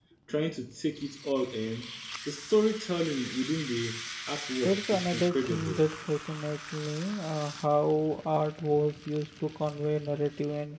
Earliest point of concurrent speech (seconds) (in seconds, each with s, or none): 4.6 s